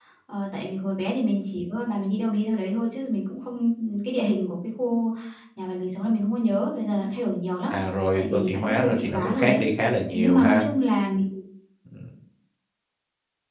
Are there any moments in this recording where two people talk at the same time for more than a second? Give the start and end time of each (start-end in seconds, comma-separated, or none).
8.1-9.6